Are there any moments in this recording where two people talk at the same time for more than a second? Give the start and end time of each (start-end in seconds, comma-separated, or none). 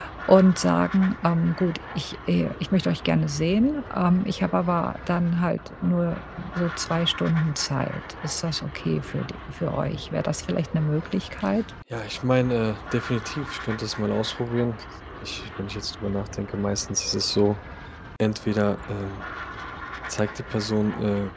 none